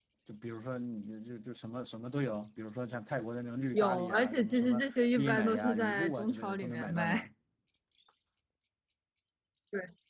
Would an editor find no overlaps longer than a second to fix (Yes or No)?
No